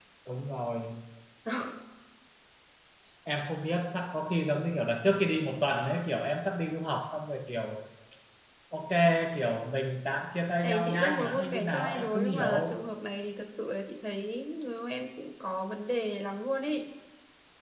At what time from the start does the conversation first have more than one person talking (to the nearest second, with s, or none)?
11 s